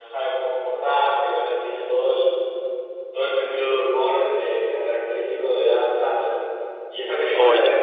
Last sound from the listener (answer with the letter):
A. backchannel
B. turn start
A